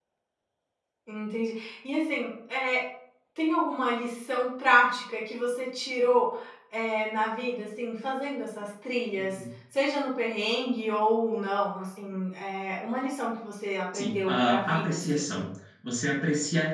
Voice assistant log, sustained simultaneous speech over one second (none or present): present